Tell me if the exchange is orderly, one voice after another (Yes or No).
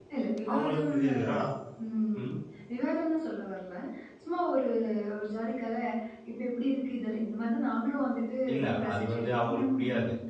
No